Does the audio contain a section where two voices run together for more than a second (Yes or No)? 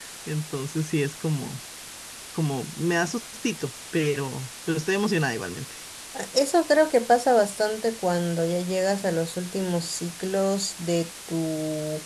No